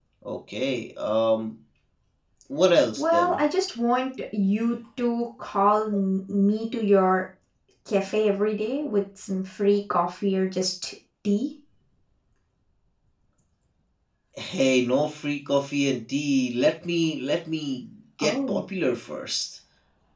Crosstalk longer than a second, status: none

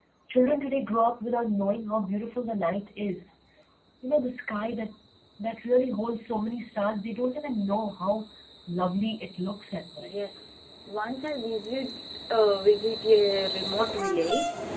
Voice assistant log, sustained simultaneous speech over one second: none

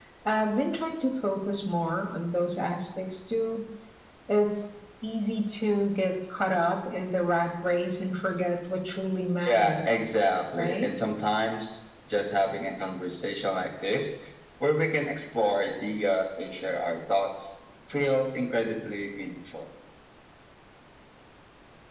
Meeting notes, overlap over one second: none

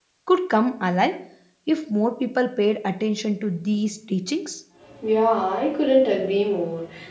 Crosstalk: none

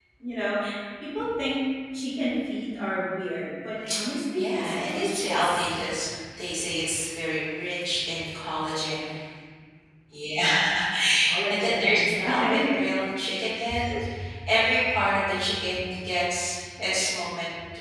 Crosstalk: present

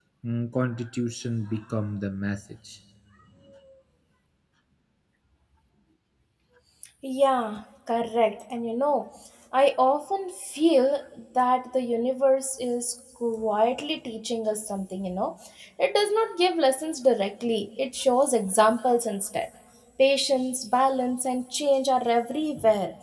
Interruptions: none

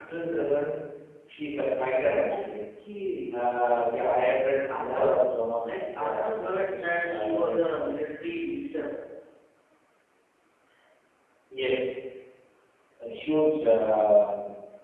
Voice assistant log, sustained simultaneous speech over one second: present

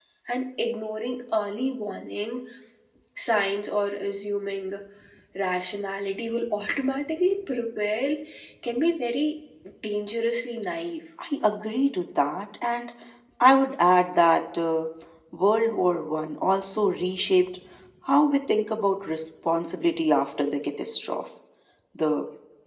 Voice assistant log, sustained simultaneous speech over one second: none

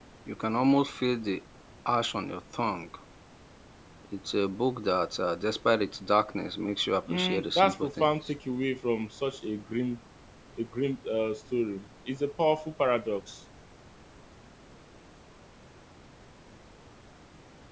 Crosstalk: present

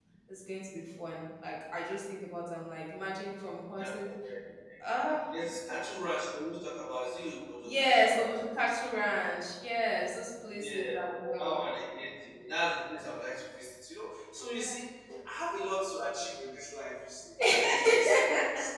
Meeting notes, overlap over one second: present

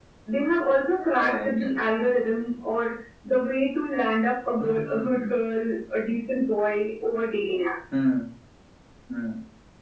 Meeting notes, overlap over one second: none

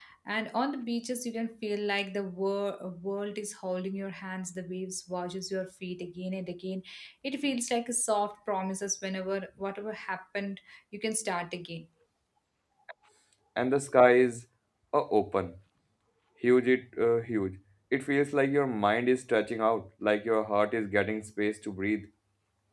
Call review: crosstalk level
none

